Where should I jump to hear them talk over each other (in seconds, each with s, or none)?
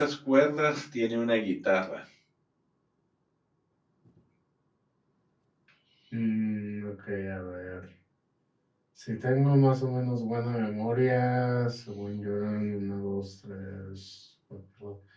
none